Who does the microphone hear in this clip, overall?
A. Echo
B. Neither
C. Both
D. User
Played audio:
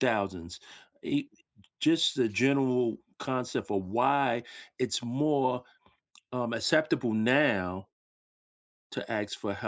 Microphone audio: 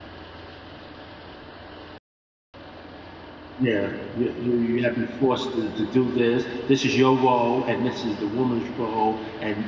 D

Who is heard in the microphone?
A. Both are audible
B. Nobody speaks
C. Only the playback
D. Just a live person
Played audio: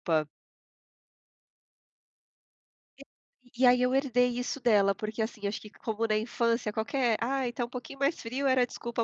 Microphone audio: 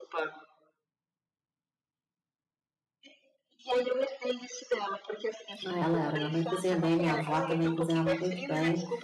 A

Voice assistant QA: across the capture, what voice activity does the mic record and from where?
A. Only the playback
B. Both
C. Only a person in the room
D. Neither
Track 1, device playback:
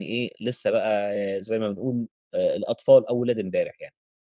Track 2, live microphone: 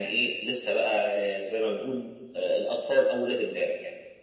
A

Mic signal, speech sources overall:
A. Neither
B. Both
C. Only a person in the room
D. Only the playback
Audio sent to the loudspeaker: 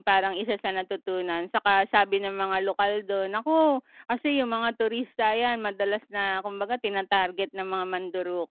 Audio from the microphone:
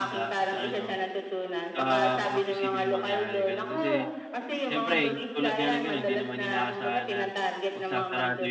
B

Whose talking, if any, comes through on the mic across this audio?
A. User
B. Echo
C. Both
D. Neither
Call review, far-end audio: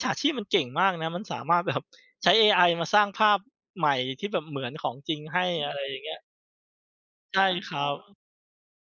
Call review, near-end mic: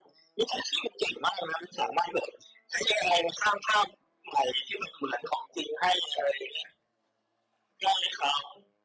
B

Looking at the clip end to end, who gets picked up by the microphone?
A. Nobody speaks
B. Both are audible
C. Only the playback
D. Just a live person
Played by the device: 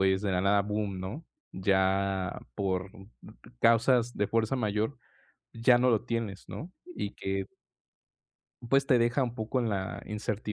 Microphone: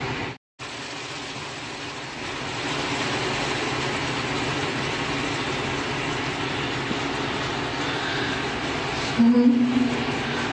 D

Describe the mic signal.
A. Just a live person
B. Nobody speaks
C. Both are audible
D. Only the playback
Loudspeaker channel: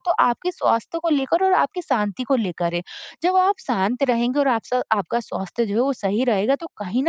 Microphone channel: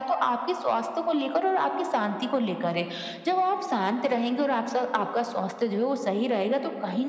D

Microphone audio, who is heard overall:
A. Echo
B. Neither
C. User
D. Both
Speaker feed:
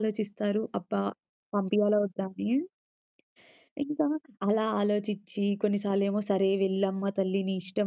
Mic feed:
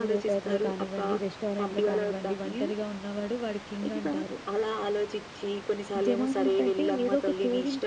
D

